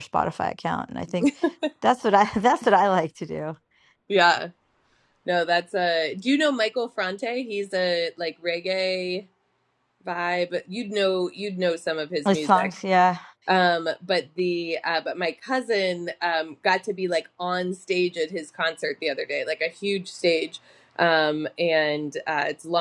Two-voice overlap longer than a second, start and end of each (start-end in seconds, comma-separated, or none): none